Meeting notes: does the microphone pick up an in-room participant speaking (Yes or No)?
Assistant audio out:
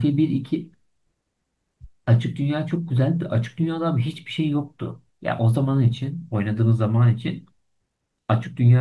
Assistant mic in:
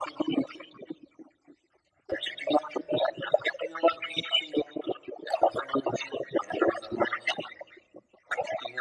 No